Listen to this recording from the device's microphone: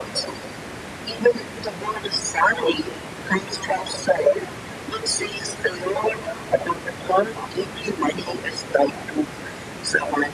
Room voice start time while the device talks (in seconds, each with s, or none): none